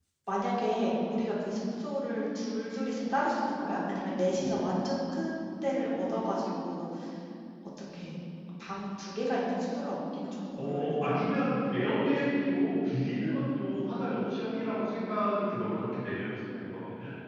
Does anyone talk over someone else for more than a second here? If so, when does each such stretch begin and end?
none

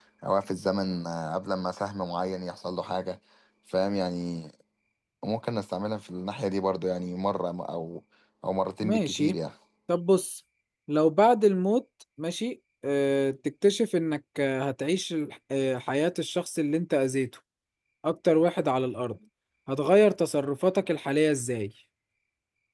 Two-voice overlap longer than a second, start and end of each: none

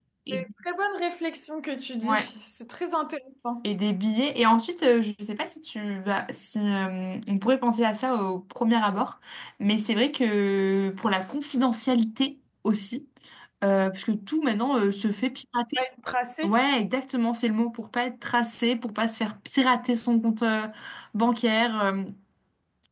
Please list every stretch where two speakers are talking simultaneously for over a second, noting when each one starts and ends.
none

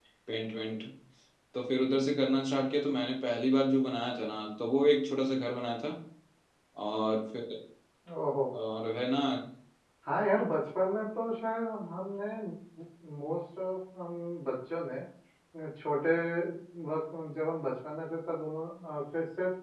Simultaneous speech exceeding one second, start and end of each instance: none

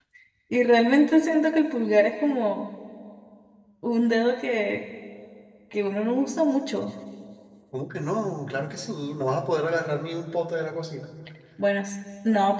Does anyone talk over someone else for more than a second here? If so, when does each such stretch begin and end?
none

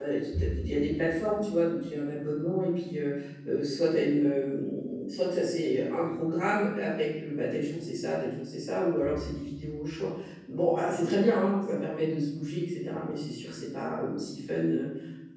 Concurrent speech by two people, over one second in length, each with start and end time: none

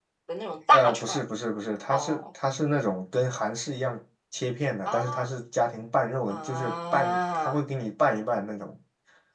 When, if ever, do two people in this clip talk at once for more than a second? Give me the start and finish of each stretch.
6.3-7.5

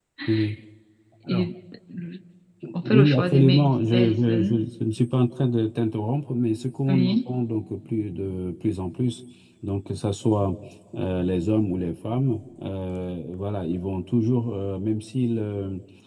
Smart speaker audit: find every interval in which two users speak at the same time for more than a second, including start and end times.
2.8-4.6

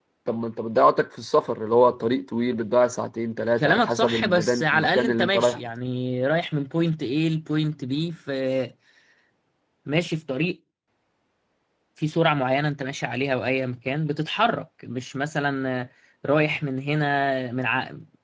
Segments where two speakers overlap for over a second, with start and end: 3.6-5.6

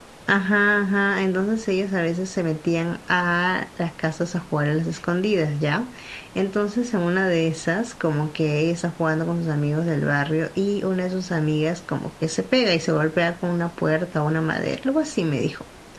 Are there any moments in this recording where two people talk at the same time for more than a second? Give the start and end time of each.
none

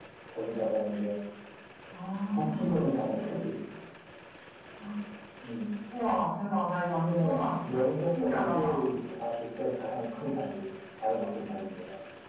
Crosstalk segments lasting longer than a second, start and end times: 6.9-8.8

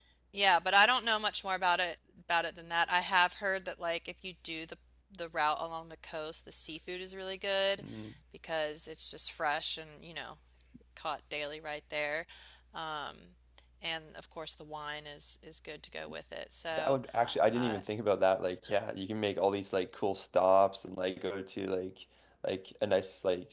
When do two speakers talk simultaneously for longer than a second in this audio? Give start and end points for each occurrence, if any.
none

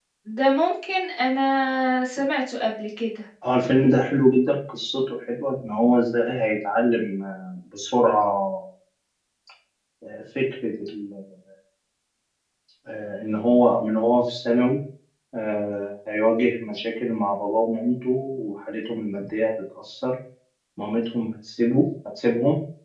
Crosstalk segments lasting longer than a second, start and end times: none

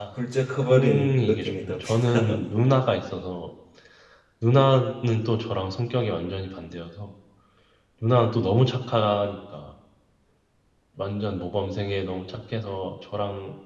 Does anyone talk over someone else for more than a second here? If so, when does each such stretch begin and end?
0.7-2.4

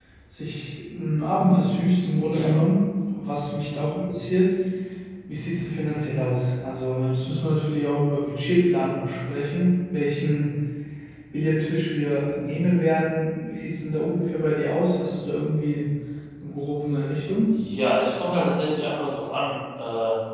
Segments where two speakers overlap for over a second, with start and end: none

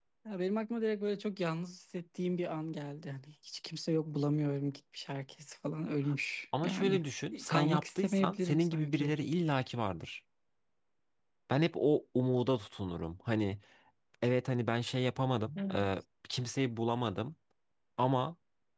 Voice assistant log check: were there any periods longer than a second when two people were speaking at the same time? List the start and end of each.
7.5-9.1

